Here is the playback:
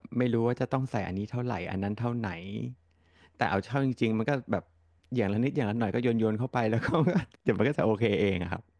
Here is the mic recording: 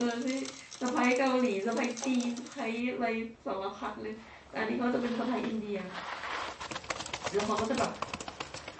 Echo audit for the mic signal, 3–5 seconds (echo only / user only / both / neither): user only